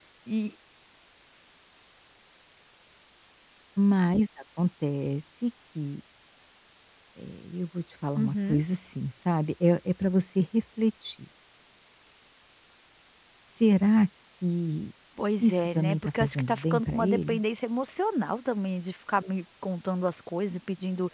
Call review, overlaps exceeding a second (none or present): present